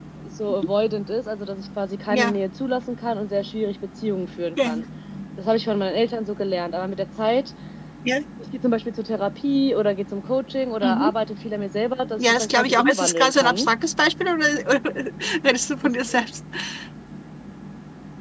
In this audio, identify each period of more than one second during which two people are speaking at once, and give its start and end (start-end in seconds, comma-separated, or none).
12.2-13.7